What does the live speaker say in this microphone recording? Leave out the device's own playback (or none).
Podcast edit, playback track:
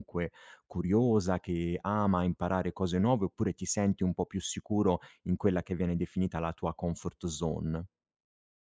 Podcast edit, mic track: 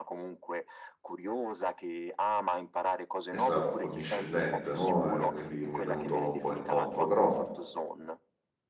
è stato accondiscendente, no, ehm, quindi mi è venuto un po' incontro. Però